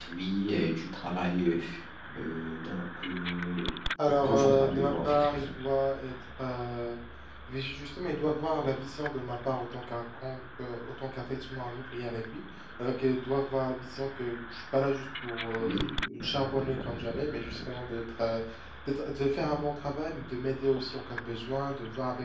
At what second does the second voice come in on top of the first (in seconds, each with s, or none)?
4.2 s